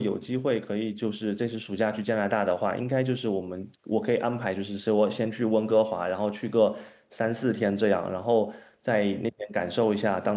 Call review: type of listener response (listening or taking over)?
listening